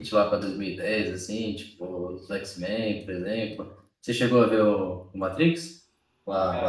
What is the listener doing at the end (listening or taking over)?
taking over